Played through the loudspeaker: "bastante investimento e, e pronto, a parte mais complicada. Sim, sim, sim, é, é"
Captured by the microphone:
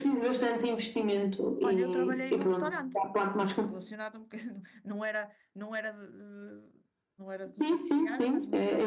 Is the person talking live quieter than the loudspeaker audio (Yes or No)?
Yes